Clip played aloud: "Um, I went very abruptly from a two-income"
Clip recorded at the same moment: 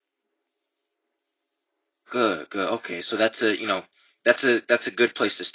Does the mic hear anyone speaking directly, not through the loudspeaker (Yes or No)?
Yes